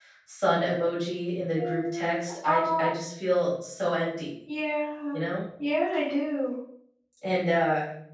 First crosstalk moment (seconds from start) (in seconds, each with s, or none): 1.6 s